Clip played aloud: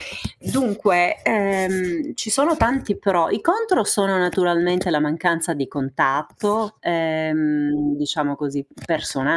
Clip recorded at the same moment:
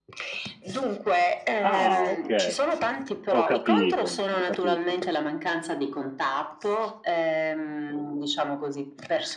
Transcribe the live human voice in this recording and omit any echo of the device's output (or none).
Ah okay, ho capito, ho capito.